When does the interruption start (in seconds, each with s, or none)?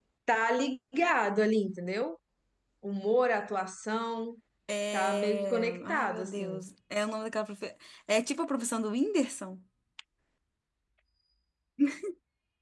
4.9 s